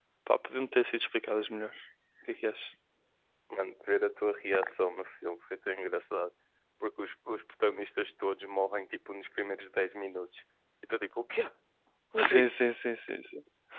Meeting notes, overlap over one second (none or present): none